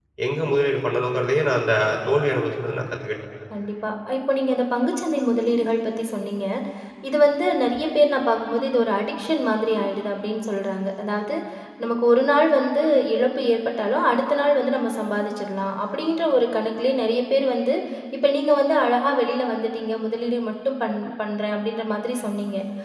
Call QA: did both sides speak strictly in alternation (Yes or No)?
Yes